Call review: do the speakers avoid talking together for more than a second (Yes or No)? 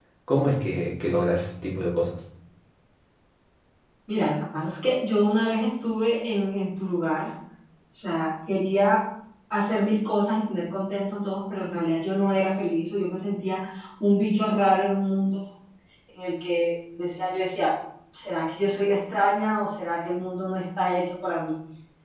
Yes